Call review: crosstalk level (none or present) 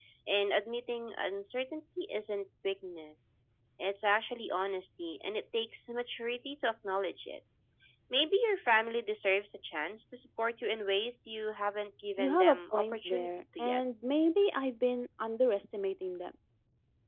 present